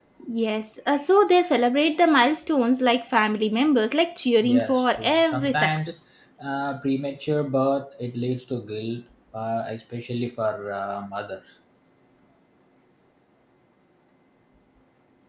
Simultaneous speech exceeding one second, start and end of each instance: 4.4-5.9

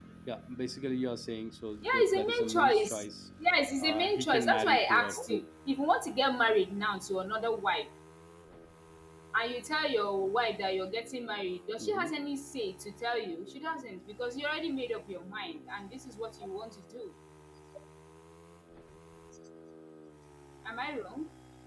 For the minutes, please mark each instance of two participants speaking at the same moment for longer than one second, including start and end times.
1.8-3.1, 3.8-5.4

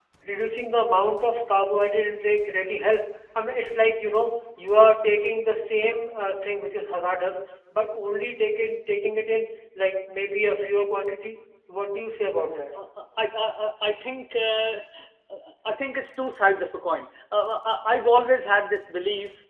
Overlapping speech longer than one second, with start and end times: none

